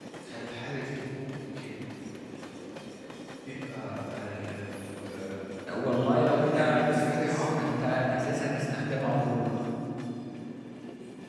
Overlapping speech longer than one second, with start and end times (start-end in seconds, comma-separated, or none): 6.5-7.8